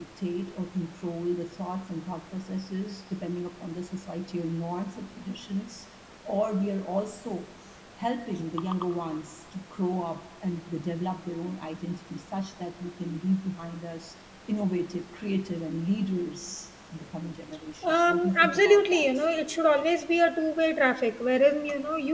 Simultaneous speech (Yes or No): Yes